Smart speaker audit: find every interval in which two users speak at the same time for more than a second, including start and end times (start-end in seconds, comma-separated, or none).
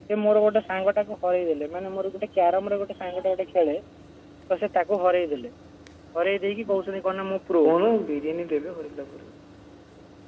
none